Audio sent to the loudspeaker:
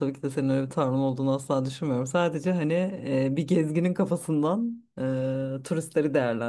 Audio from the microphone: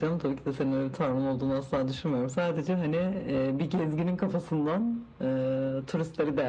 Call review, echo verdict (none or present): present